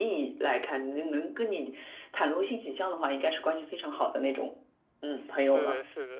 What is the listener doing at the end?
taking over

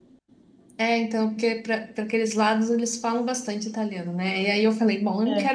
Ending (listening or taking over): listening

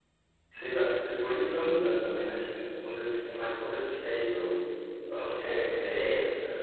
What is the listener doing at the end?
listening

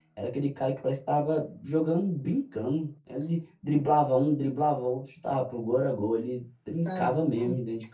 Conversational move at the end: taking over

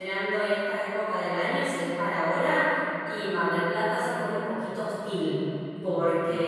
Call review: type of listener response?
listening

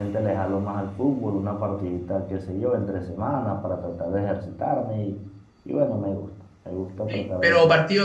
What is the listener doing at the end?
taking over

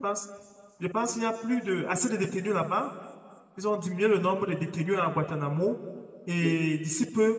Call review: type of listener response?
listening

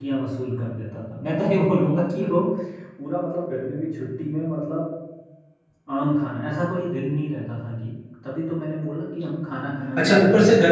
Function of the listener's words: taking over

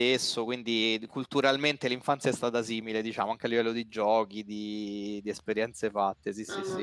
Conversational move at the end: taking over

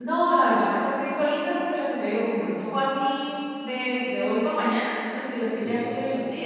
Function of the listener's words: listening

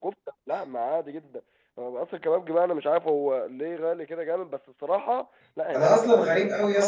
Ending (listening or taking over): taking over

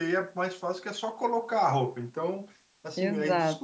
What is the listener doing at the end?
listening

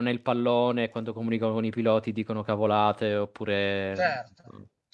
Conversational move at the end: taking over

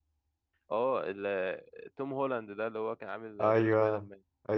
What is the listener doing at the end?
taking over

